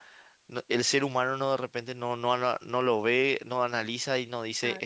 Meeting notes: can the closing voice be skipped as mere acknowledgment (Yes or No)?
Yes